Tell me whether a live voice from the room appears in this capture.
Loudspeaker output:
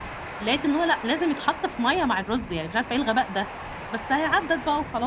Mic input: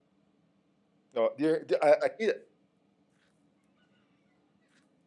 Yes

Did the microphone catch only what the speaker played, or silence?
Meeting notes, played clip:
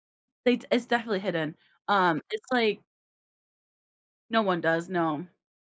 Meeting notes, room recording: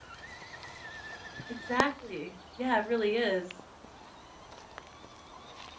No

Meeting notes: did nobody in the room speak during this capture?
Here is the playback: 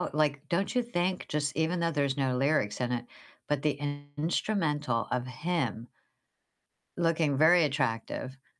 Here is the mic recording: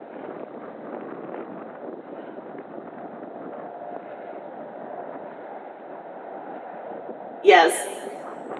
No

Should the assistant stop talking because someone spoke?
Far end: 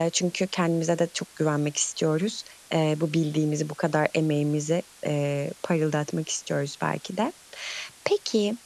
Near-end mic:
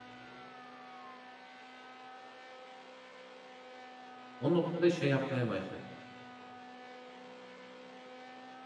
Yes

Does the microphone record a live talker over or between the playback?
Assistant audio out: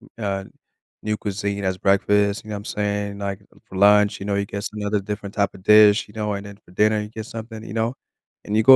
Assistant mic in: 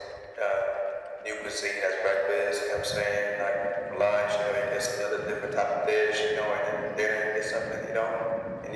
No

